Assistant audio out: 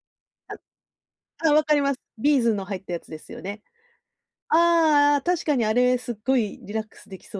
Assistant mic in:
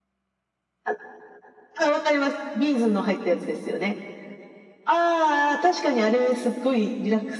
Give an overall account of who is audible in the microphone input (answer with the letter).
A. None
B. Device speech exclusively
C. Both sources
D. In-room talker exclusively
B